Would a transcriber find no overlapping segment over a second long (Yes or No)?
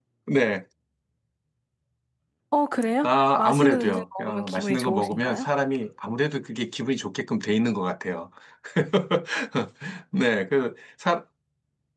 No